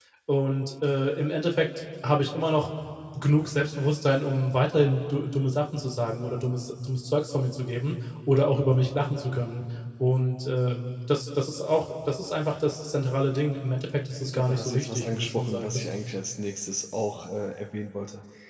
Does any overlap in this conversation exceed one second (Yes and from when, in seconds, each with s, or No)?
Yes, from 14.2 s